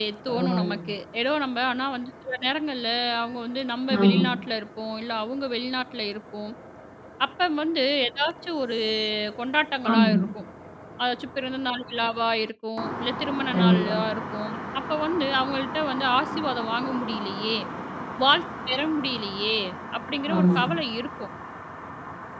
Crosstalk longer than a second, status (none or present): none